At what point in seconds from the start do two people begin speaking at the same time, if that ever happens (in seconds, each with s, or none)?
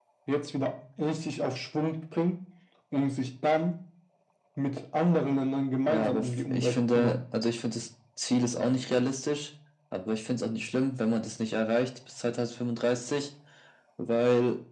5.9 s